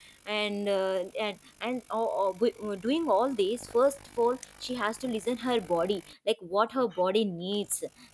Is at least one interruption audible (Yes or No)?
No